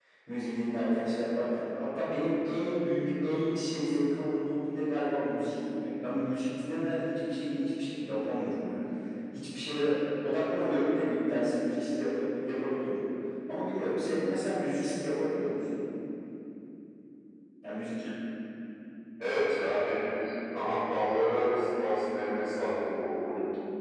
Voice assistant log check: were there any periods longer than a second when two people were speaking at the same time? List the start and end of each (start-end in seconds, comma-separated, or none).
none